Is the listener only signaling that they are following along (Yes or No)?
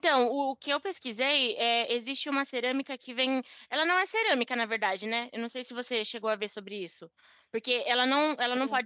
Yes